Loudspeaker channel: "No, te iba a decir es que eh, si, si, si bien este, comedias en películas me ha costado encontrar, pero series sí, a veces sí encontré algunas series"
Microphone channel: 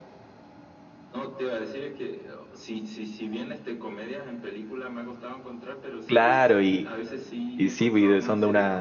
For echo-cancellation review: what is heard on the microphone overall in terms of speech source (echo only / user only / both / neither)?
both